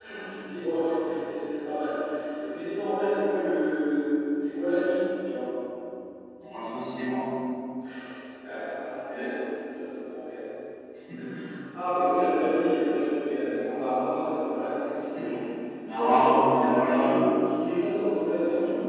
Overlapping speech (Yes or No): Yes